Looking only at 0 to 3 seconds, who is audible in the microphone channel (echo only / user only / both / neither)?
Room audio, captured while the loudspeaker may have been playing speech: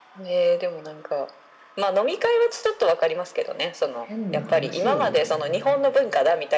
echo only